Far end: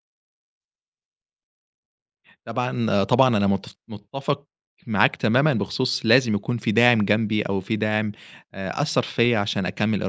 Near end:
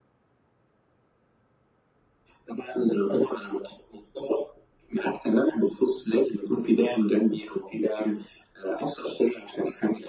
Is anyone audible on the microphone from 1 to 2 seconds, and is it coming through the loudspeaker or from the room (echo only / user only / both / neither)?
neither